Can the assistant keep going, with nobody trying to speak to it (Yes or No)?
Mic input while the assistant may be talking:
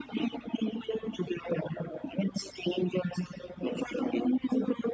Yes